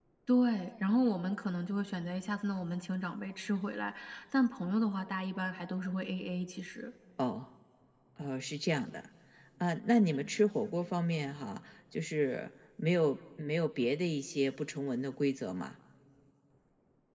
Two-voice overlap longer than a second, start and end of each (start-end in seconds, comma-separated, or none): none